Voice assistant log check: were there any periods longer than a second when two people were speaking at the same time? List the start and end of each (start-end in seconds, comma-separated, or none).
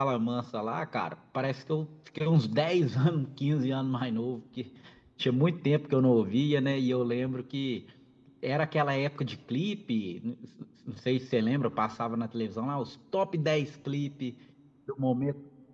none